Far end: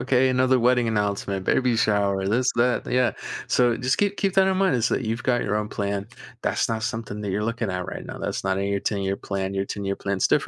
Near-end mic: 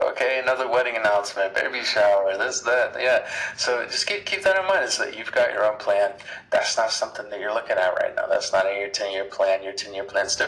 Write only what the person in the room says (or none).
none